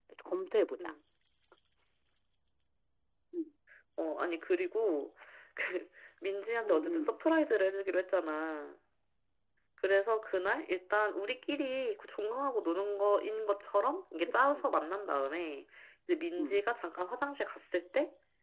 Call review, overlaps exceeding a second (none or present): none